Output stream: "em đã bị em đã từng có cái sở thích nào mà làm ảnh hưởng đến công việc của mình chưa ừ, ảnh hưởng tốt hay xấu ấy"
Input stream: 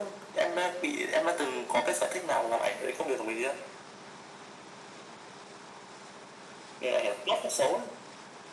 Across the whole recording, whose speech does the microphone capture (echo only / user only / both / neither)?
echo only